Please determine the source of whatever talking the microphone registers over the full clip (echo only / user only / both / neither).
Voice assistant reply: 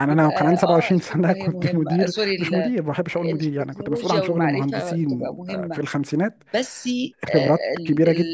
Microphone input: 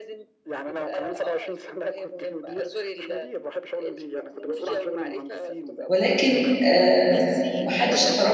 both